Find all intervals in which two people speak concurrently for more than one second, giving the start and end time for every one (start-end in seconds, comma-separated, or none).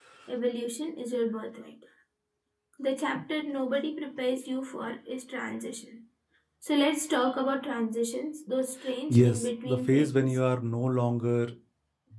9.1-10.4